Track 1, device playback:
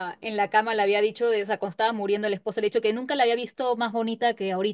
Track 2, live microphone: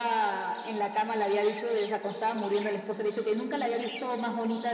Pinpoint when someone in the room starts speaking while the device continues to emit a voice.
none

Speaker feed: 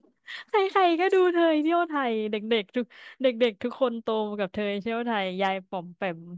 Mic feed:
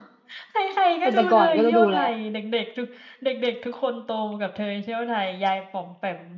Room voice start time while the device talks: 1 s

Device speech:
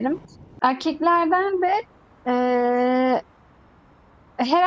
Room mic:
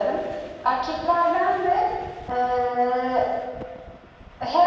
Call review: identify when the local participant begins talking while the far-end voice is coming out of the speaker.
none

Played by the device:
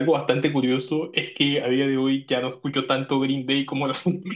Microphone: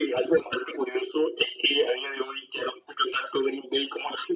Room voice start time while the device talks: none

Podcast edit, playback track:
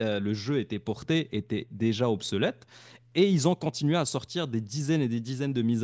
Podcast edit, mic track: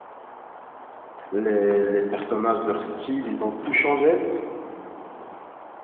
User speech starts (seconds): 1 s

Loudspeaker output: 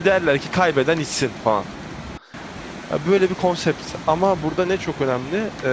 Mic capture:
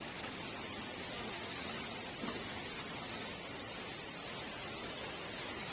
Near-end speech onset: none

